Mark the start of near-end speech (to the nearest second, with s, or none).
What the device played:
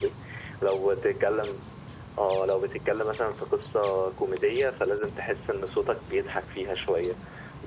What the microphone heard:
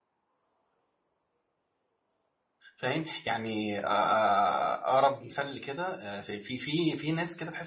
3 s